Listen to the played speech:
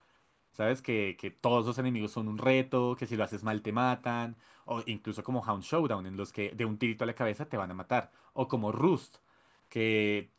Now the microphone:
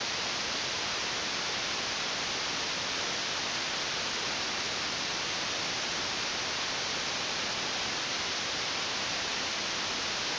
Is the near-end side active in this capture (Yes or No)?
No